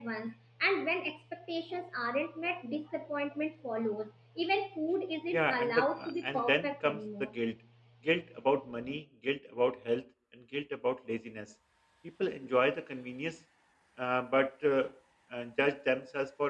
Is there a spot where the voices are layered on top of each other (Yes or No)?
Yes